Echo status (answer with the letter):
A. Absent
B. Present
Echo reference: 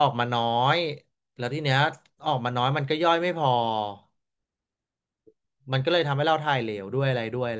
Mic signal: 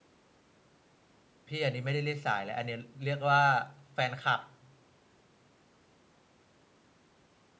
A